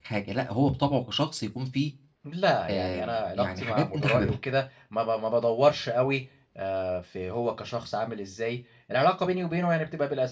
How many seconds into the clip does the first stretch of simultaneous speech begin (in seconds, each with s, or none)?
2.7 s